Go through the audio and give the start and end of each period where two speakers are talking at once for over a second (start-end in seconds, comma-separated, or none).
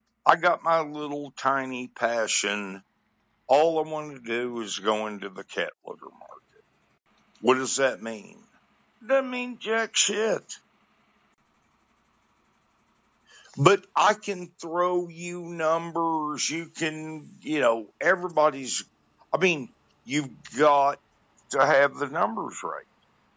none